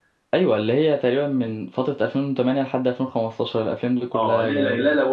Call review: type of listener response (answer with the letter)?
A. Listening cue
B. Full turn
B